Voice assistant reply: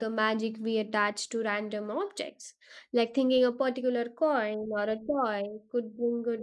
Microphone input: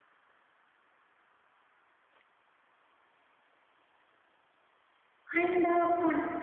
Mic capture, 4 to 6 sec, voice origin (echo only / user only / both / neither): user only